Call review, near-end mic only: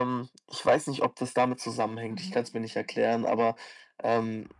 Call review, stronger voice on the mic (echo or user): echo